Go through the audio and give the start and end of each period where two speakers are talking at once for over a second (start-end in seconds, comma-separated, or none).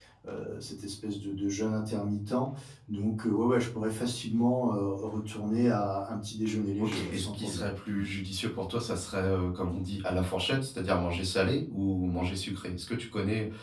6.8-8.0